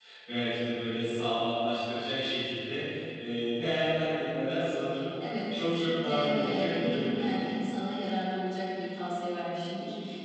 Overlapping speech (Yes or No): Yes